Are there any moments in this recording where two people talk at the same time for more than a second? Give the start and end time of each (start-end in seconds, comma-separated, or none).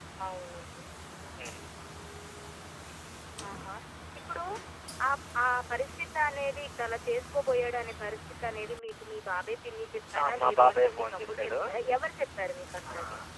10.2-11.5